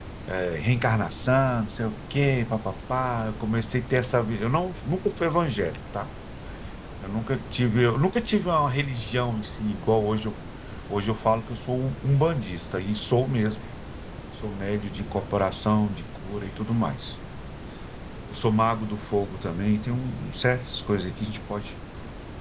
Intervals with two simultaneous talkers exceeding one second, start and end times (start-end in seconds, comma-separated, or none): none